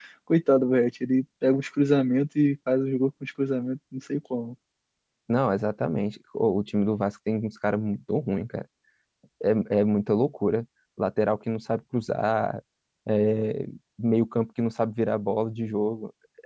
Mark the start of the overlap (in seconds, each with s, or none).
none